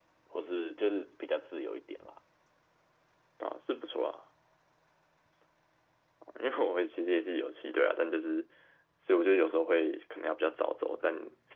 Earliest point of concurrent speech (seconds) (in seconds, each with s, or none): none